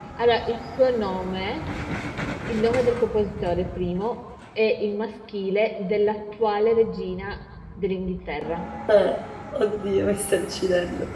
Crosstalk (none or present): none